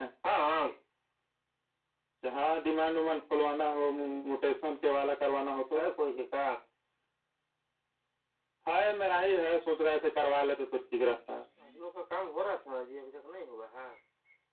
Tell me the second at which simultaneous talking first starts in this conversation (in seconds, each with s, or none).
none